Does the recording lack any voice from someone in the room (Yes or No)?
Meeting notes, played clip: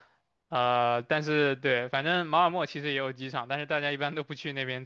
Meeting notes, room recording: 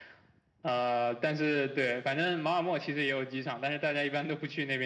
Yes